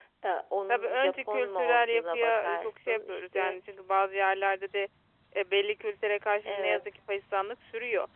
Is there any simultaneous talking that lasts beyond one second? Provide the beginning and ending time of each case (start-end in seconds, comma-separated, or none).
0.7-3.6